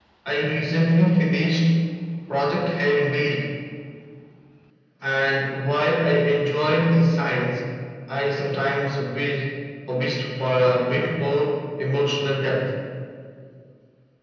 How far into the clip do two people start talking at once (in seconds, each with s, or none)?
none